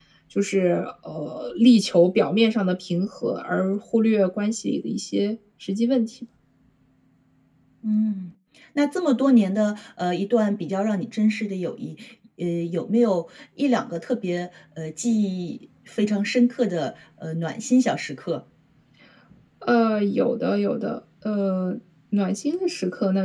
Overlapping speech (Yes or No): No